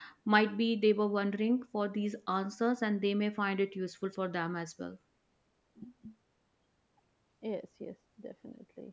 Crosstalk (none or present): none